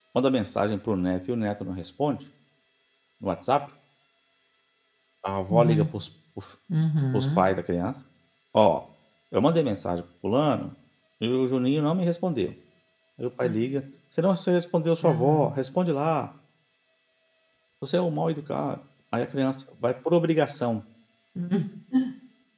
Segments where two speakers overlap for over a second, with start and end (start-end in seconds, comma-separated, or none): none